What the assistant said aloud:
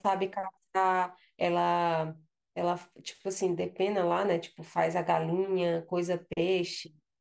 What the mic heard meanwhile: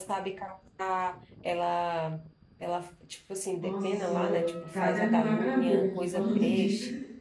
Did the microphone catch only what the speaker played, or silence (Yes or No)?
No